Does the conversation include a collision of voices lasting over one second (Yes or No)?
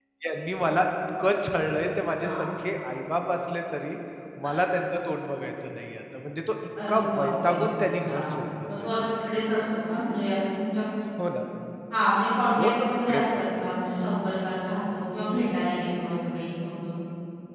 Yes